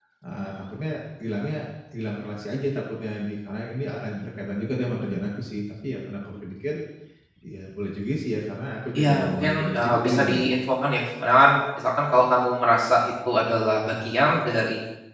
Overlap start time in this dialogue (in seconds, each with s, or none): 9.0 s